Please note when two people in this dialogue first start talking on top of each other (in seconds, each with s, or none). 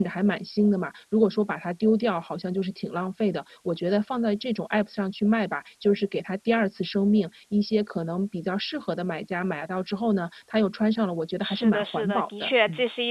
11.4 s